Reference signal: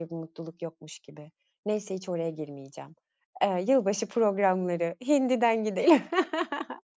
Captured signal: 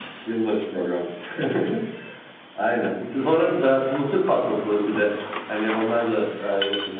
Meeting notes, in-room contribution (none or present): present